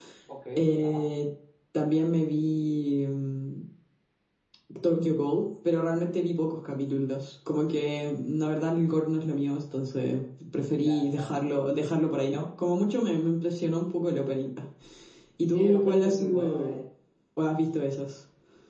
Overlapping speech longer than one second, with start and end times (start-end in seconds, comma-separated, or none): 15.4-16.8